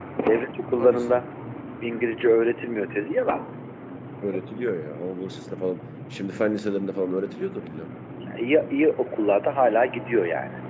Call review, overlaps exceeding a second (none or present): none